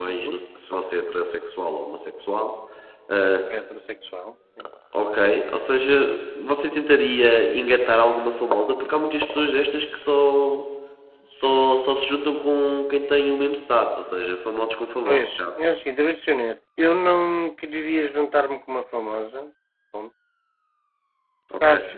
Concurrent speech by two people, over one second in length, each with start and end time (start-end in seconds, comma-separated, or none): none